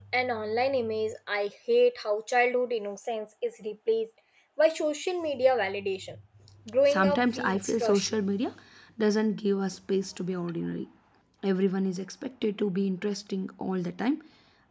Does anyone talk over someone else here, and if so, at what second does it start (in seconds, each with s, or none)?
6.9 s